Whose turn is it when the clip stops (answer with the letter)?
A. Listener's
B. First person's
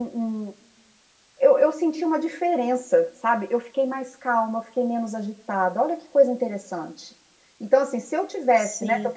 B